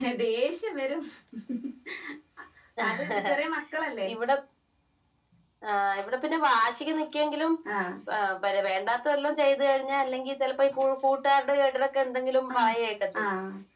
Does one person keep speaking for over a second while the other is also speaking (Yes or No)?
No